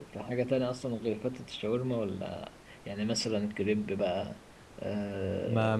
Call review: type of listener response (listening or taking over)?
taking over